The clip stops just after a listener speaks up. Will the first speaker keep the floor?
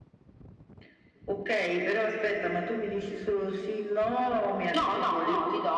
No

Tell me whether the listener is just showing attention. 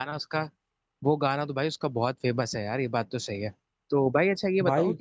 Yes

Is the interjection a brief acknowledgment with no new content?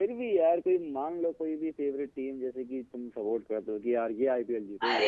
No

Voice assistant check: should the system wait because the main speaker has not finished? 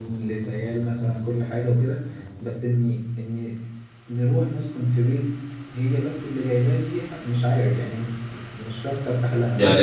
No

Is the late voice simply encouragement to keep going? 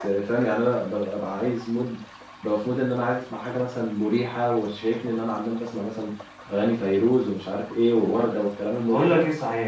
No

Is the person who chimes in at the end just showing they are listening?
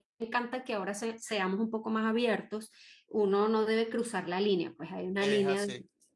Yes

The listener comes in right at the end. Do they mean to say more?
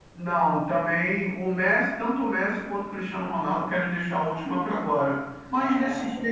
No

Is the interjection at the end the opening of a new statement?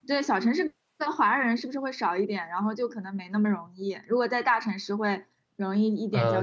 Yes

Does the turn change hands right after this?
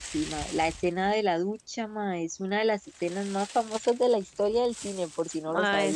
Yes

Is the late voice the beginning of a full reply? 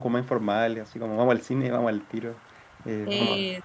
No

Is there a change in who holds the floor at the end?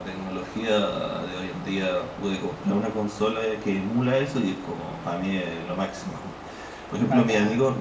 No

